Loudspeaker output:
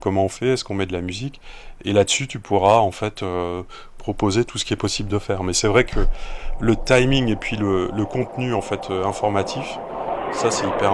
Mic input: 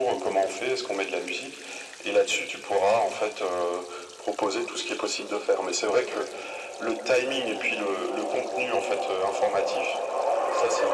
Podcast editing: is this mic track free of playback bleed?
No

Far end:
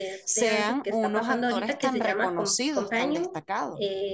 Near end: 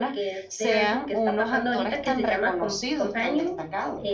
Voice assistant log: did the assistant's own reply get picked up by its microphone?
Yes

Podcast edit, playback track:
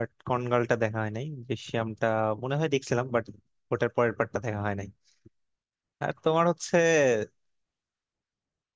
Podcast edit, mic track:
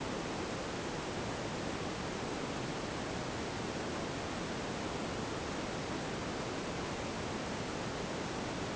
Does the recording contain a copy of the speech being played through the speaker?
No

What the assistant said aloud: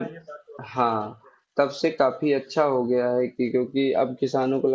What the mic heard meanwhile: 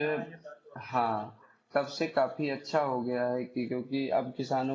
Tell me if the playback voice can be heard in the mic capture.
Yes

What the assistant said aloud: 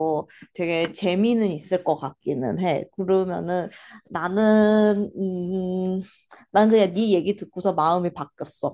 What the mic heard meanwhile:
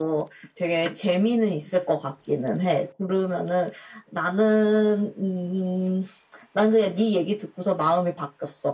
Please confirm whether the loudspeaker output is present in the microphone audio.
Yes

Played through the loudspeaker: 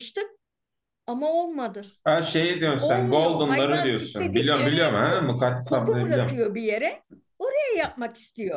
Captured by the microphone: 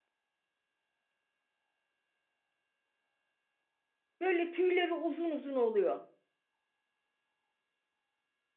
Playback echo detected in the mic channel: No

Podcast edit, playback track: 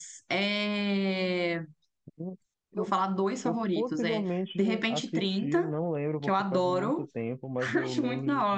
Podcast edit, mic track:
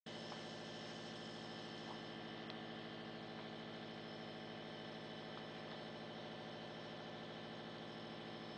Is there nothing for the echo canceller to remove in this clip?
Yes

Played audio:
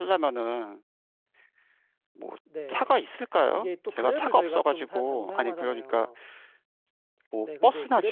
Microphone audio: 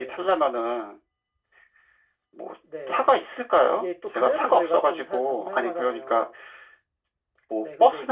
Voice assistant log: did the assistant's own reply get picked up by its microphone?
Yes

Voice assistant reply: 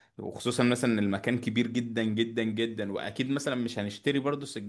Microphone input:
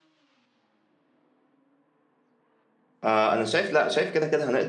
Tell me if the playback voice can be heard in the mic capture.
No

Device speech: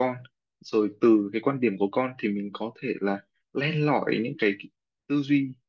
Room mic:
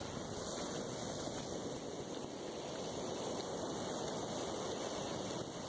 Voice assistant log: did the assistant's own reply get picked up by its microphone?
No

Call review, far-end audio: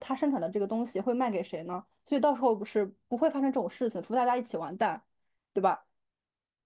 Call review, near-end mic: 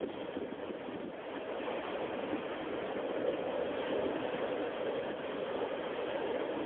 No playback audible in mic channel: Yes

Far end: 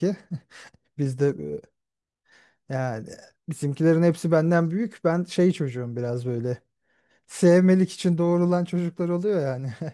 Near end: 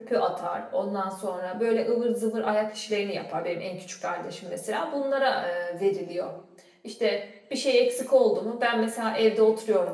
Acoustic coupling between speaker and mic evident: No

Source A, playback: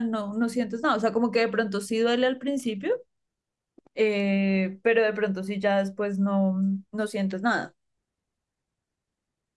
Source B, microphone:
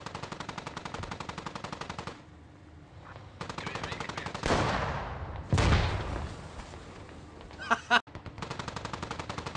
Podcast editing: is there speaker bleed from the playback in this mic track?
No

